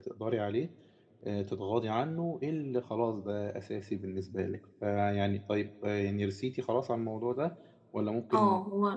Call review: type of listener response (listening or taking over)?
taking over